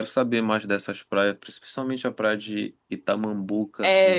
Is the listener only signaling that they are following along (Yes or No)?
No